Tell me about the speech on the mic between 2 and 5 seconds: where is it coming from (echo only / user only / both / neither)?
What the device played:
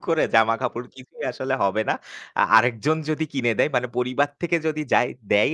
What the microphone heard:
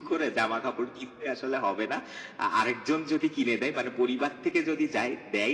echo only